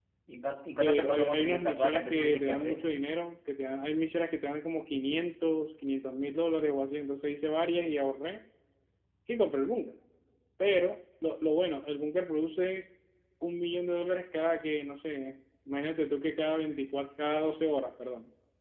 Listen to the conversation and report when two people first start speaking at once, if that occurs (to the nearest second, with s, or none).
1 s